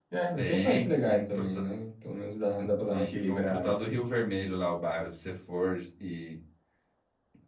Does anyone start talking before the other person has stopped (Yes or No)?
Yes